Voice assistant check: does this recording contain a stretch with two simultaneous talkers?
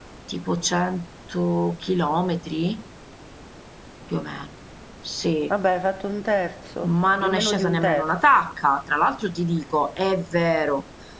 Yes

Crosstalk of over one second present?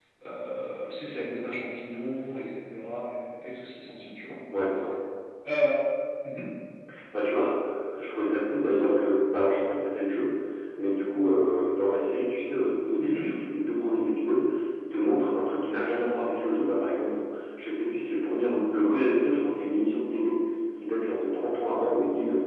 No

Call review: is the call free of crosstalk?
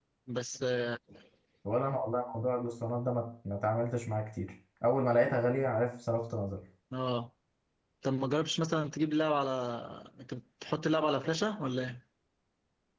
Yes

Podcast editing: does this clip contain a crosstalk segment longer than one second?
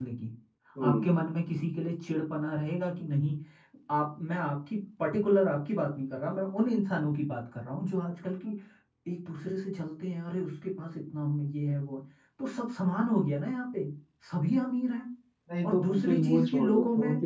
Yes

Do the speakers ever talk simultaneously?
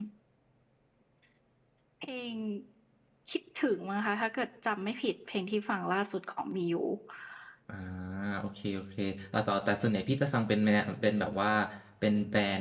No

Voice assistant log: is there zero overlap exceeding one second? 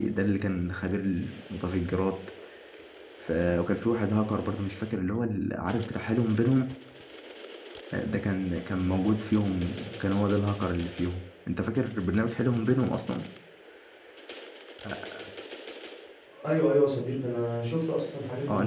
Yes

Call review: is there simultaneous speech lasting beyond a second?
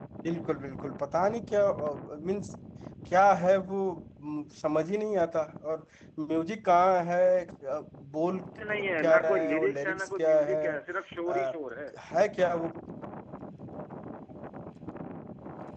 Yes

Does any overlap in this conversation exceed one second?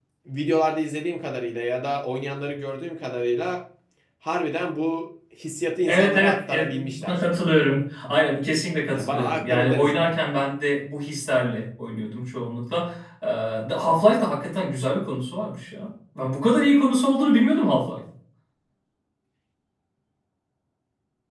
Yes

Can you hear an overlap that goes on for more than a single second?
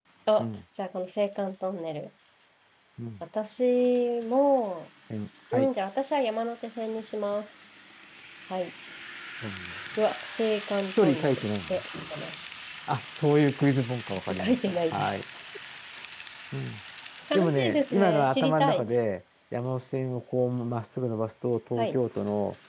Yes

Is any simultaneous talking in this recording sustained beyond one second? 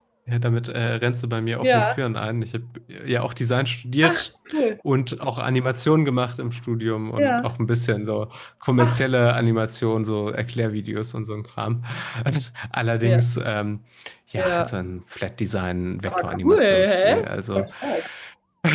Yes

